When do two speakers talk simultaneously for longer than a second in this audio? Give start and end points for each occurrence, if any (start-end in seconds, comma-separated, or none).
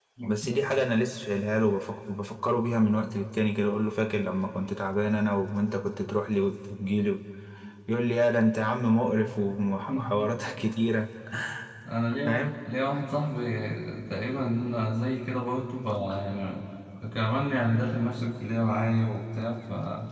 none